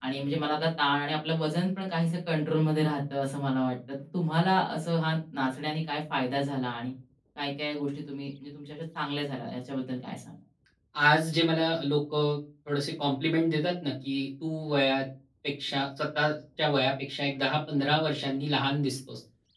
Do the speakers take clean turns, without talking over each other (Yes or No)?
Yes